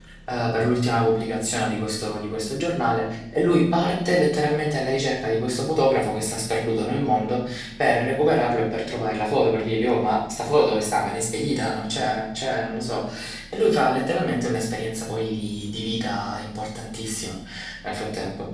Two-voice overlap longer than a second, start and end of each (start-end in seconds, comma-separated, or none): none